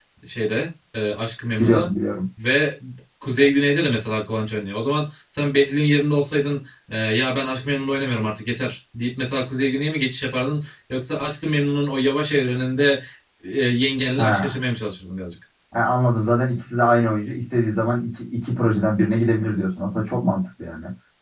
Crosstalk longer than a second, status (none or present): none